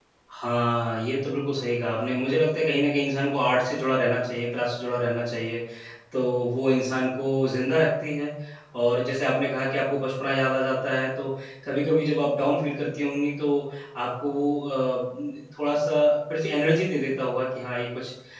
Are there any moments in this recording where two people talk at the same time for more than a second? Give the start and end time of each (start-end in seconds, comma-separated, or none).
none